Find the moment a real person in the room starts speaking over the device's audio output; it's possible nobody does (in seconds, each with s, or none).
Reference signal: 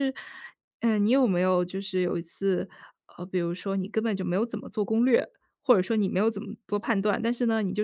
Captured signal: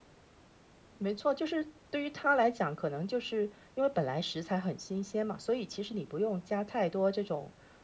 0.9 s